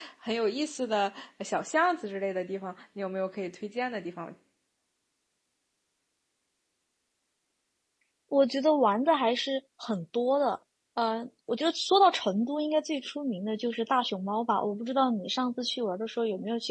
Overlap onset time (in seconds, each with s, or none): none